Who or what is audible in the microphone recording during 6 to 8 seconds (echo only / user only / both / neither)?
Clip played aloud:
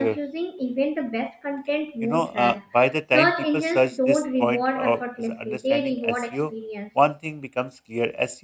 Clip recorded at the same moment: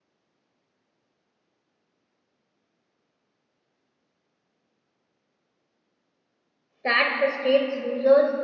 user only